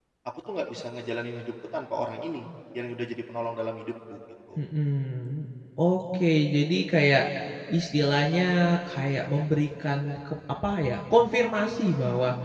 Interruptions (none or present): none